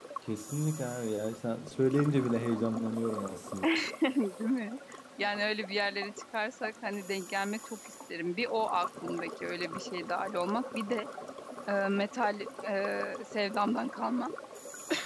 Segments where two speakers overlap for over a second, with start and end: none

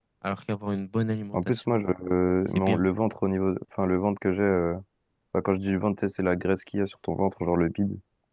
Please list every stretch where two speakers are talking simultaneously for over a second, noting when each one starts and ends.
none

